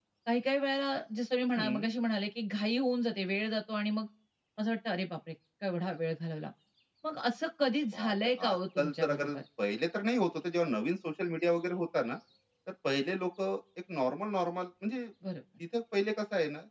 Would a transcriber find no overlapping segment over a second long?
No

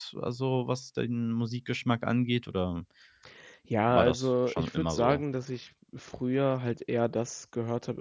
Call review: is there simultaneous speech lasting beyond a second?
Yes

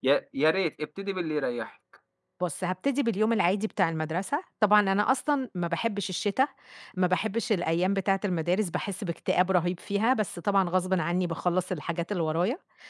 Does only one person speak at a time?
Yes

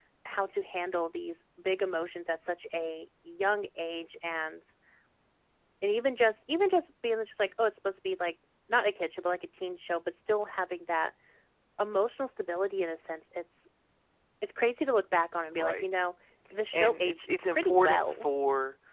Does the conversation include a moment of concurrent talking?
Yes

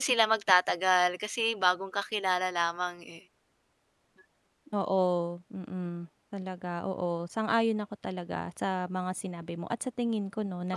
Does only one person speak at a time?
Yes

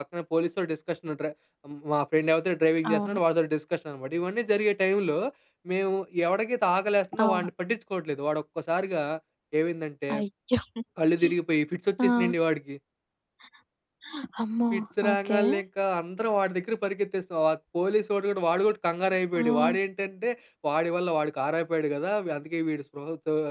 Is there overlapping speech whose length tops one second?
No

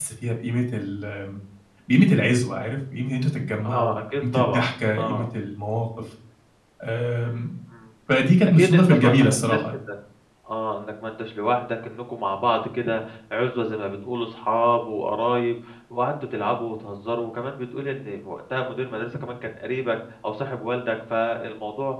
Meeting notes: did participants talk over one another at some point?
Yes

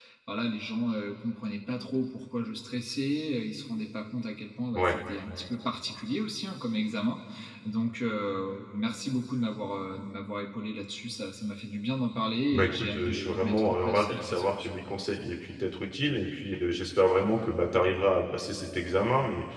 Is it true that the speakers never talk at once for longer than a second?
No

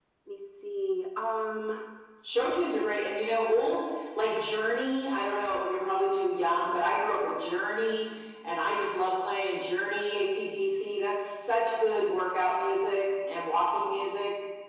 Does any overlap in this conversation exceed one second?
No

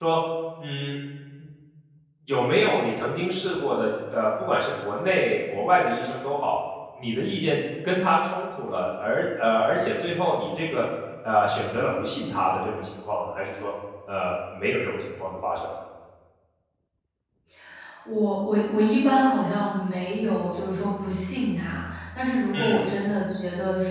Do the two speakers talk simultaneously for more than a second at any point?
No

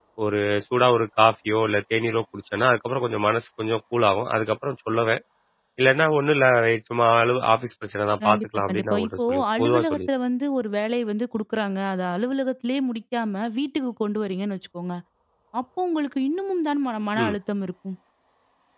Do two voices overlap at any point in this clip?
Yes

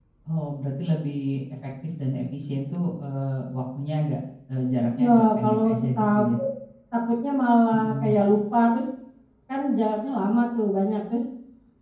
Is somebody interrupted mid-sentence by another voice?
Yes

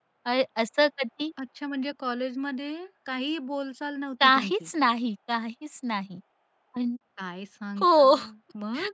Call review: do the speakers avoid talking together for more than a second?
Yes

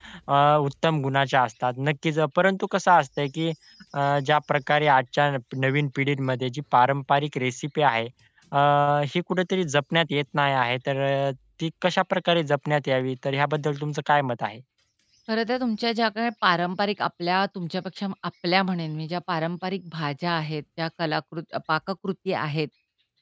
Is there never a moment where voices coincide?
Yes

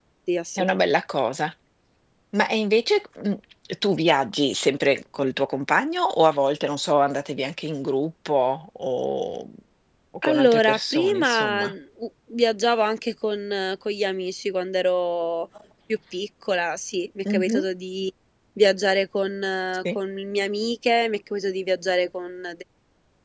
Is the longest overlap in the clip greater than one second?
Yes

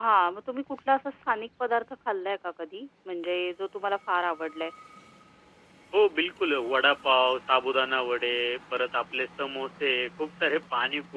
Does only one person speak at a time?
Yes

